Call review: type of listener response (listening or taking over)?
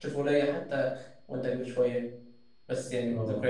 listening